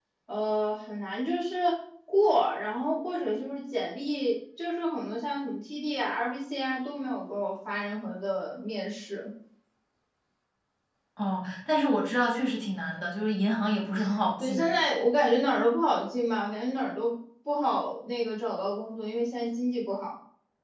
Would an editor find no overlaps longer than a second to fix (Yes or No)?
Yes